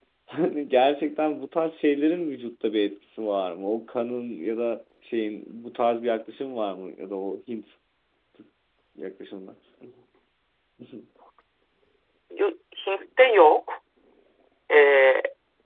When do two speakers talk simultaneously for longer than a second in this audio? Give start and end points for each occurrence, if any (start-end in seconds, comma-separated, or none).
none